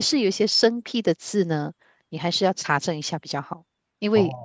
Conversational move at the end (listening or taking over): listening